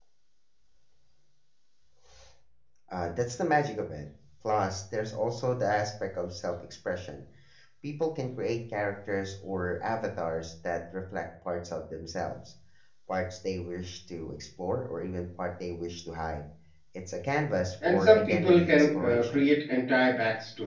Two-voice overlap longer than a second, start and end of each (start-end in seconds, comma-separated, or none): 17.9-19.5